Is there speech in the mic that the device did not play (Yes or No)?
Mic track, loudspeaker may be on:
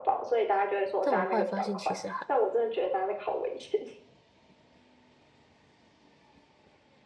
Yes